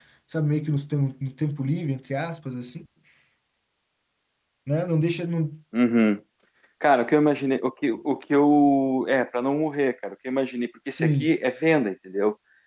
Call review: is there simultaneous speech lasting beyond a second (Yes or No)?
No